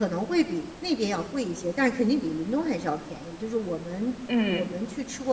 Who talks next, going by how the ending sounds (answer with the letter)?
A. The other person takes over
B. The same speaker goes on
B